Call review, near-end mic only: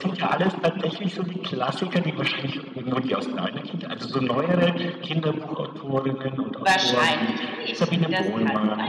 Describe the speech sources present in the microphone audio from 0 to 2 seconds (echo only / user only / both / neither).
echo only